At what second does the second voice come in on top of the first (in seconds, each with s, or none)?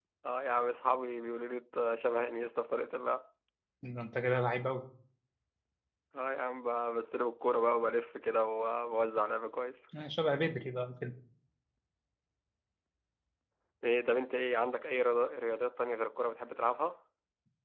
none